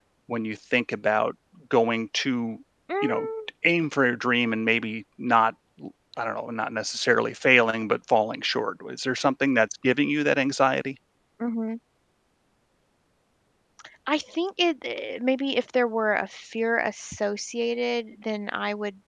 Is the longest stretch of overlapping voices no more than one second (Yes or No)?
Yes